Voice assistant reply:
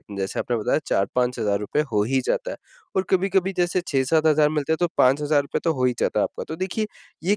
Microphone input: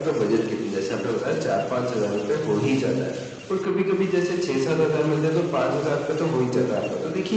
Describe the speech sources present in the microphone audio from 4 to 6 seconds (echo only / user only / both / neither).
echo only